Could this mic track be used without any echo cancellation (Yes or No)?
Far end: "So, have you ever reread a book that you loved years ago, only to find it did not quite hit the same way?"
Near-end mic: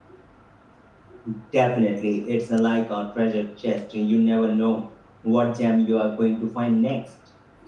Yes